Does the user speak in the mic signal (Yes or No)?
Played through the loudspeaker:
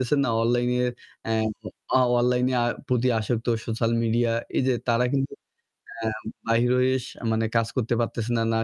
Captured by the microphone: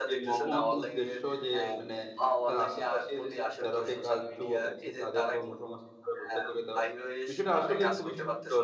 Yes